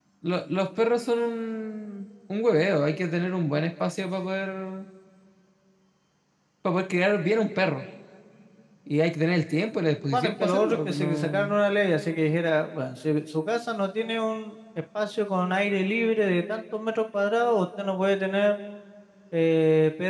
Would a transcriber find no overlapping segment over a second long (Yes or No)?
No